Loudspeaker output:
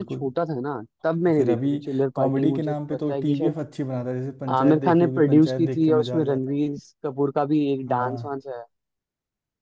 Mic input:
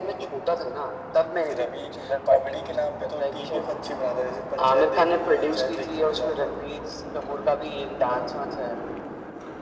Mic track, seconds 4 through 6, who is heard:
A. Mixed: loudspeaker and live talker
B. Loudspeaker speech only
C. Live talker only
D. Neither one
B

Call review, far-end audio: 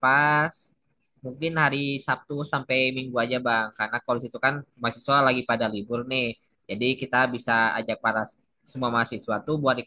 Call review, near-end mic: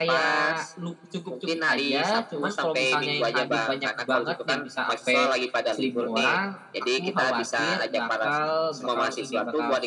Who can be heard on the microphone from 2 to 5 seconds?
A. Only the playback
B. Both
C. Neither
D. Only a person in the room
B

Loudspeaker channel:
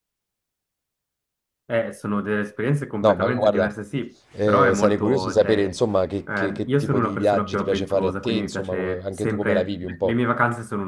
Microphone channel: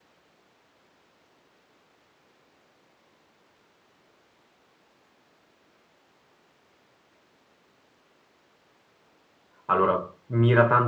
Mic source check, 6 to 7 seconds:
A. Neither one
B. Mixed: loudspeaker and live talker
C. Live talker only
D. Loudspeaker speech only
A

